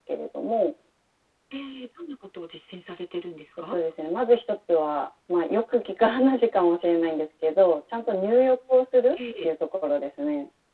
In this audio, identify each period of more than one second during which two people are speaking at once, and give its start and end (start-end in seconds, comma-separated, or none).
none